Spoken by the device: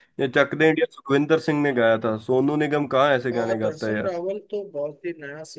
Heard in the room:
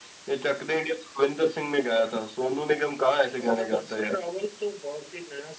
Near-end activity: none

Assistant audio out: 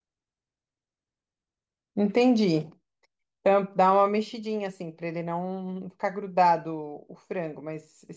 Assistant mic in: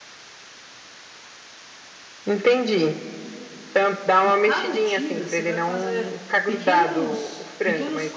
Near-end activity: present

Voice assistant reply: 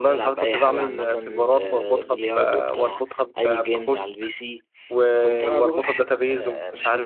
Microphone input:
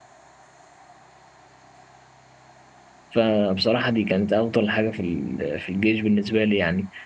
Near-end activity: present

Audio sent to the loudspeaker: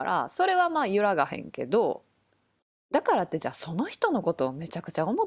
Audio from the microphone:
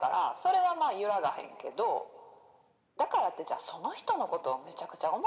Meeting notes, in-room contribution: none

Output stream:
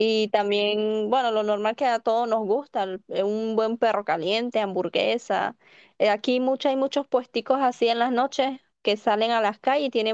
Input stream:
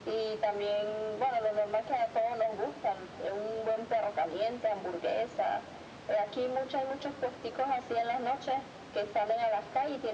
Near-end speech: none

